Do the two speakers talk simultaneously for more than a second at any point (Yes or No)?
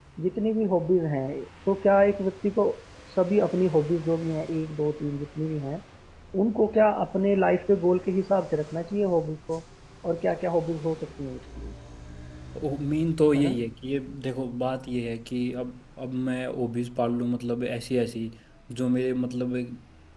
No